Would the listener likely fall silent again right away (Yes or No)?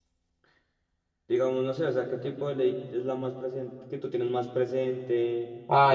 No